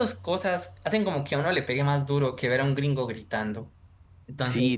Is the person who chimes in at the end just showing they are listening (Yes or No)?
No